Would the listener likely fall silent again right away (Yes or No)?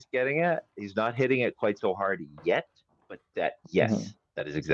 Yes